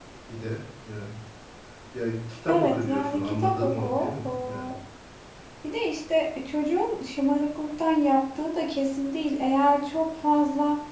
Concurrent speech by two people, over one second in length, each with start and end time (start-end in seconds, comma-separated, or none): 2.5-4.7